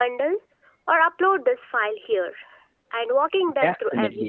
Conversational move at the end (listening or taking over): taking over